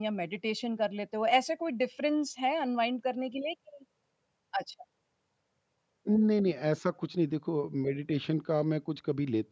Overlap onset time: none

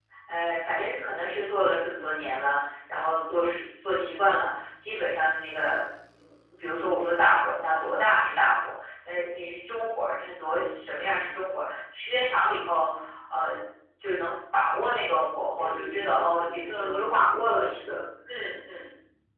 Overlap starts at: 15.6 s

